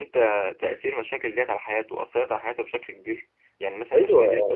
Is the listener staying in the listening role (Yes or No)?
No